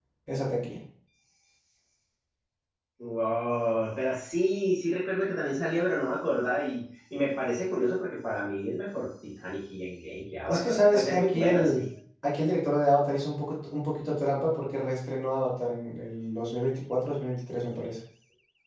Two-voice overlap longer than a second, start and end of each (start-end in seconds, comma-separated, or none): 10.5-11.8